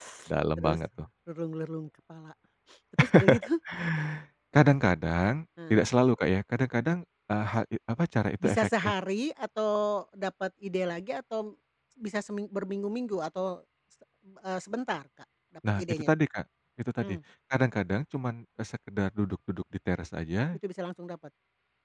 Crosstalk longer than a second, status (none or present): none